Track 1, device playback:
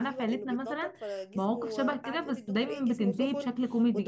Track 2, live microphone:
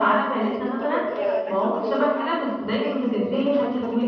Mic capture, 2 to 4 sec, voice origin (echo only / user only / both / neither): both